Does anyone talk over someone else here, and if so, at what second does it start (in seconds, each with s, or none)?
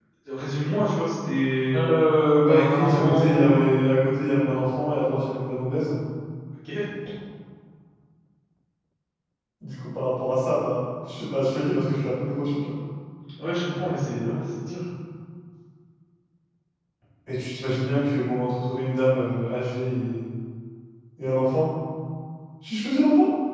2.5 s